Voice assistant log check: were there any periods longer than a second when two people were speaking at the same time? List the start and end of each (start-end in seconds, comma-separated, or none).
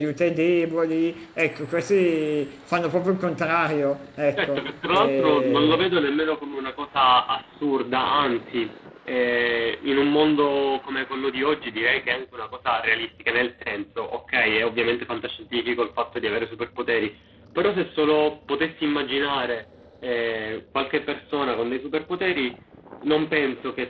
4.4-5.9